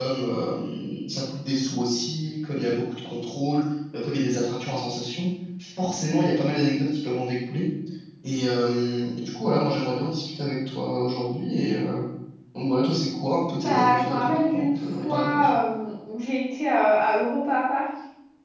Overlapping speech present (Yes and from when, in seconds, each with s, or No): Yes, from 13.6 s